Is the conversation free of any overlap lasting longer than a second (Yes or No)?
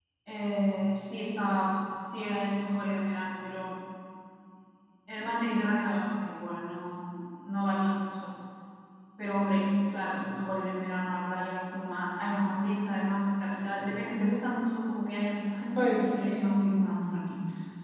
No